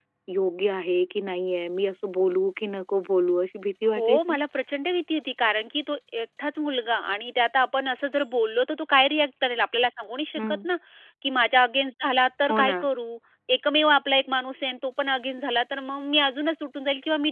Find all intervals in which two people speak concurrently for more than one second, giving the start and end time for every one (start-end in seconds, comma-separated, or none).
none